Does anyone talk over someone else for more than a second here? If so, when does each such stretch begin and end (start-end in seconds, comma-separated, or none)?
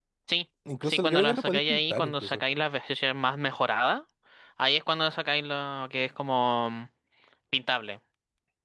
0.8-2.4